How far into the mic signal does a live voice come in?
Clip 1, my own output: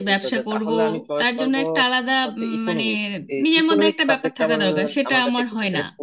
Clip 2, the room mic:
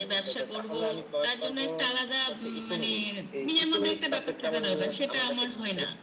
none

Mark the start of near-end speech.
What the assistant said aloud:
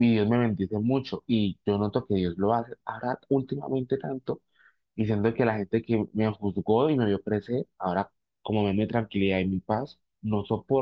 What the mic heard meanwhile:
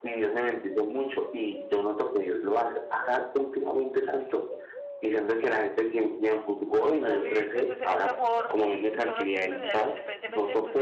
7.0 s

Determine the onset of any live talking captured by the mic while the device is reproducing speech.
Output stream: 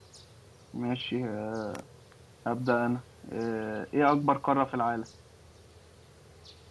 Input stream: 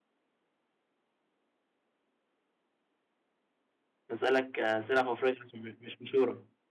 4.1 s

